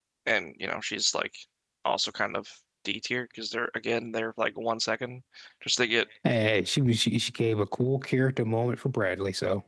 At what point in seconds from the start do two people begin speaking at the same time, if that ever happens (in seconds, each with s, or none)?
none